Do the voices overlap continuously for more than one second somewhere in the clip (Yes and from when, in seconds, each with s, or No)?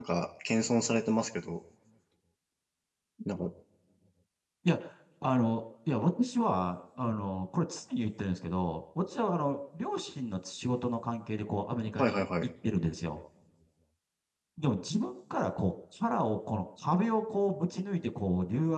No